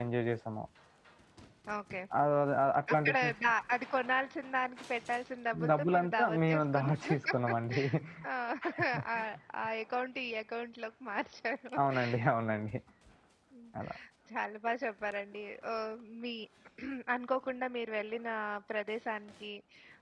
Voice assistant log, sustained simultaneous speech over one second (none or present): present